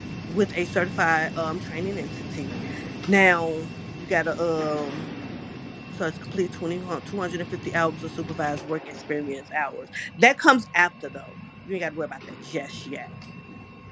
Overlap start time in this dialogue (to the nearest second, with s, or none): none